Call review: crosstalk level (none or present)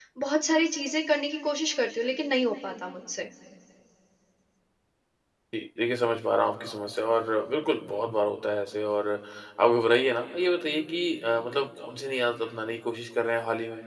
none